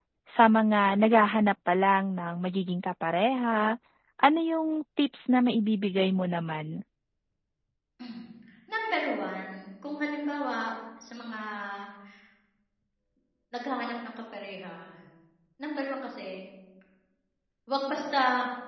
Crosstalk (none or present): none